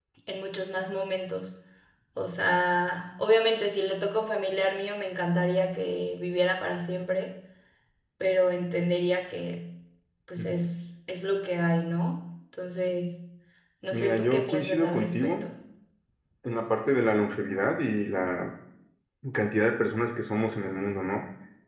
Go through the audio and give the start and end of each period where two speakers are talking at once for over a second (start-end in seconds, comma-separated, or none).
13.9-15.4